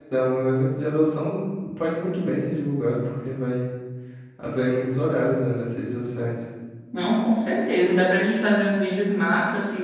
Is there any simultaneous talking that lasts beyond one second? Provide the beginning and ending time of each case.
none

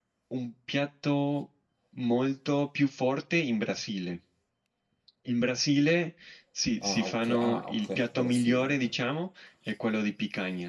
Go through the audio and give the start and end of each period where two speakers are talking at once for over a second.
6.8-8.7

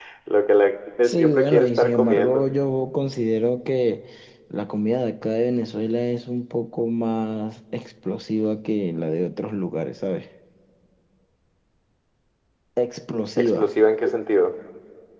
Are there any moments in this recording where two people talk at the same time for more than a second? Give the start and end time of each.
1.0-2.4

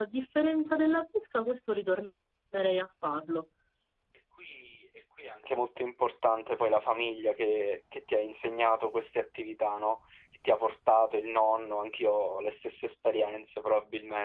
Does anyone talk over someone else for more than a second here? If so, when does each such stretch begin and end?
none

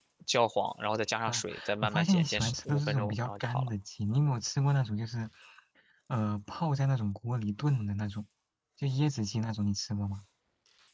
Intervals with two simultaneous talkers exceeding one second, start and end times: 1.3-3.7

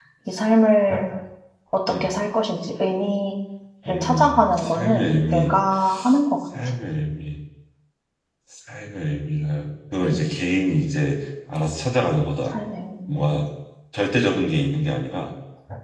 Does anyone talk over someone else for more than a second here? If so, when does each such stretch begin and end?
3.9-5.5

